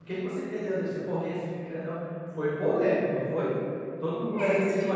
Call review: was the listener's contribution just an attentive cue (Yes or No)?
No